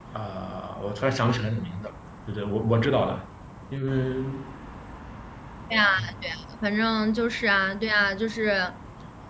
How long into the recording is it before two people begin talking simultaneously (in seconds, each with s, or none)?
none